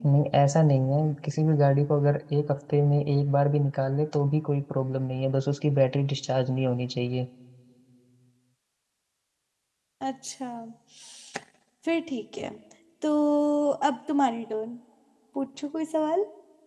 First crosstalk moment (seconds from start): none

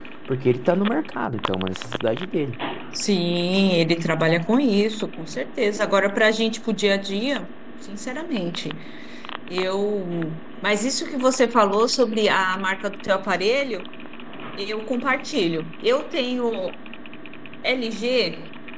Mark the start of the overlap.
none

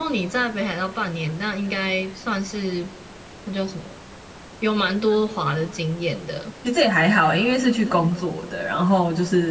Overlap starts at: none

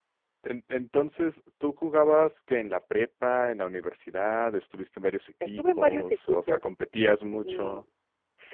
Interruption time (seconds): 5.4 s

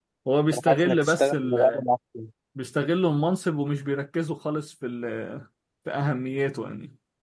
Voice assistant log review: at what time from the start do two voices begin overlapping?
0.5 s

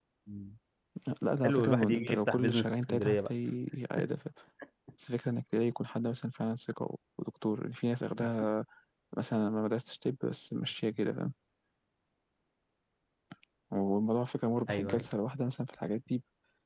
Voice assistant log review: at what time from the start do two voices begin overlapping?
1.4 s

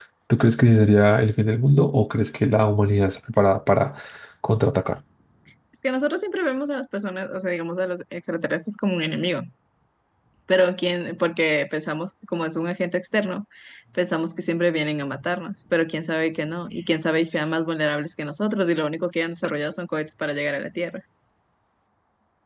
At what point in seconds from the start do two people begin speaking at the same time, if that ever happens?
none

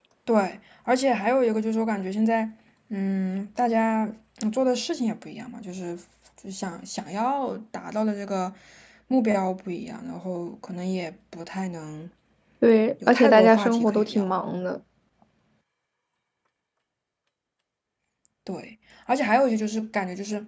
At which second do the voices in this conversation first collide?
13.1 s

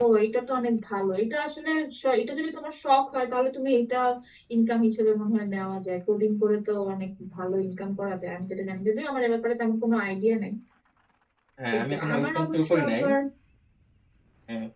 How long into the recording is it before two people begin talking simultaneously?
11.7 s

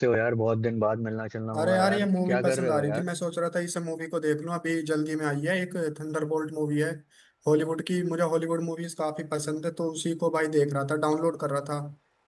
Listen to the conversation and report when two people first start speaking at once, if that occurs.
1.5 s

